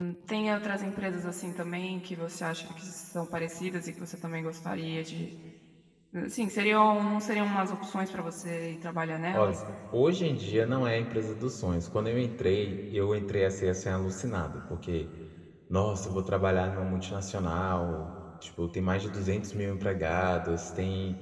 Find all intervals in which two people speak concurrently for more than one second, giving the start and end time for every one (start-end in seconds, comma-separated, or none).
none